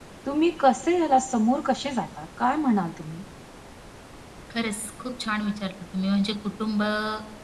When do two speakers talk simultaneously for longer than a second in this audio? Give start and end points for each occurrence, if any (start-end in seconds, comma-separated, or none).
none